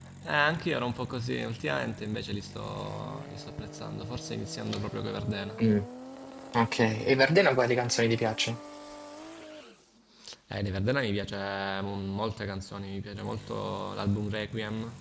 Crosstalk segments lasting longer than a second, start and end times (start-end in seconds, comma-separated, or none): none